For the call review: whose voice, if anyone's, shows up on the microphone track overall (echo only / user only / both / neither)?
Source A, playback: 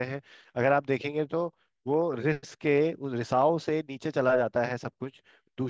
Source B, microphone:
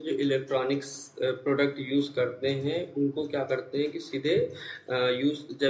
user only